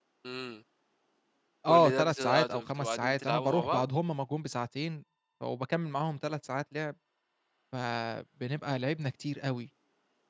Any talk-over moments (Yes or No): Yes